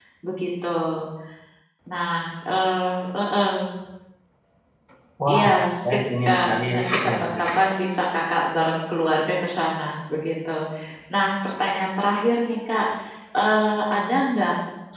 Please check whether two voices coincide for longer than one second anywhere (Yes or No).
Yes